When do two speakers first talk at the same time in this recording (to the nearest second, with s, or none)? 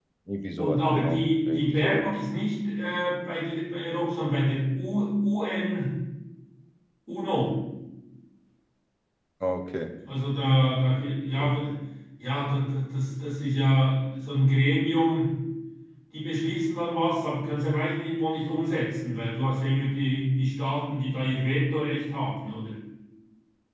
1 s